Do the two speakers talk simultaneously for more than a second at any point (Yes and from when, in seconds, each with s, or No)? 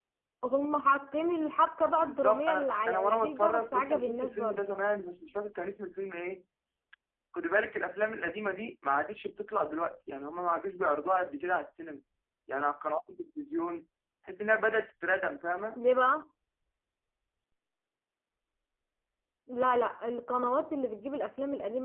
Yes, from 2.0 s